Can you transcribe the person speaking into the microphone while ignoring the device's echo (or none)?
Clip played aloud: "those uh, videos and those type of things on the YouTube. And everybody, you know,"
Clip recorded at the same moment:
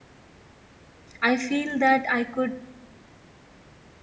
i feel that i could